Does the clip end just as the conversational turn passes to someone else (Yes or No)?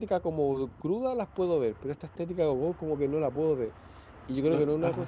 No